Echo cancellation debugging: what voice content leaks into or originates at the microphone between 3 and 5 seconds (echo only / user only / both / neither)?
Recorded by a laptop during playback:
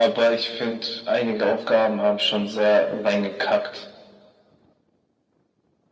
echo only